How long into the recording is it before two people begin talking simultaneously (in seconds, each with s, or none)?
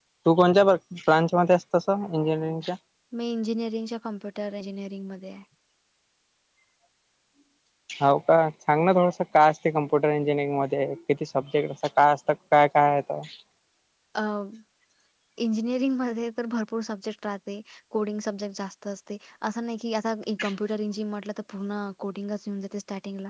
none